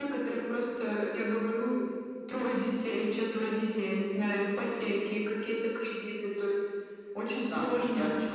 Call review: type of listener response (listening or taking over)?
taking over